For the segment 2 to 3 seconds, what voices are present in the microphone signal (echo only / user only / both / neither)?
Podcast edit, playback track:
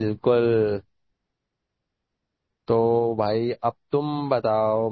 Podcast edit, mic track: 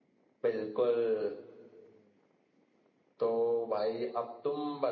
neither